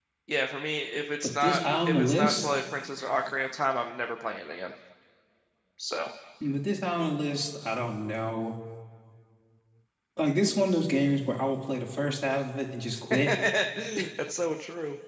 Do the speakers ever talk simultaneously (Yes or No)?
Yes